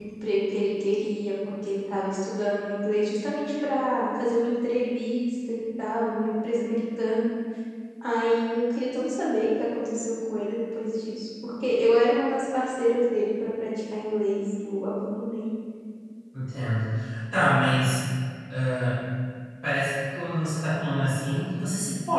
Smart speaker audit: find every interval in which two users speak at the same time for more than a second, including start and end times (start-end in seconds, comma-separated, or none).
none